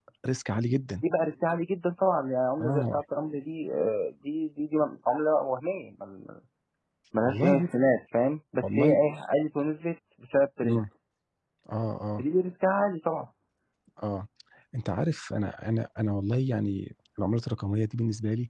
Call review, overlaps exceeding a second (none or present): none